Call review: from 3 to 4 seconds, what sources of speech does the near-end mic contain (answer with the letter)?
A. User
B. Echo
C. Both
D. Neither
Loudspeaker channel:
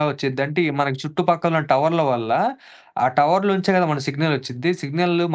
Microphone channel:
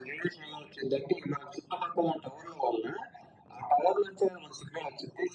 B